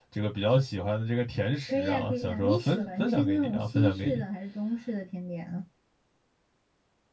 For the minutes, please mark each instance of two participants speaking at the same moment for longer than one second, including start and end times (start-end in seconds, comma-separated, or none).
1.7-4.2